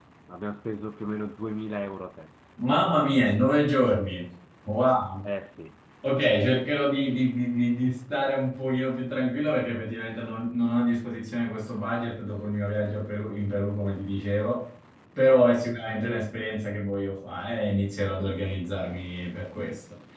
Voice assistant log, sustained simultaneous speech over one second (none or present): none